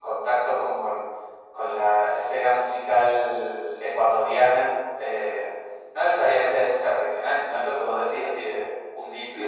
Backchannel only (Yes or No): No